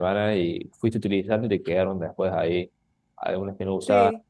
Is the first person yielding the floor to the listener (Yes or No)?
No